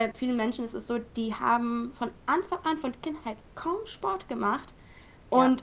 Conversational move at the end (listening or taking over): listening